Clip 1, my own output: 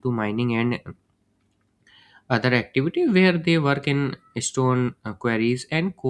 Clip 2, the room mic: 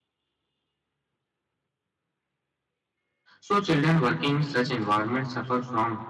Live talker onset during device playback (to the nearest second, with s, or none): 3 s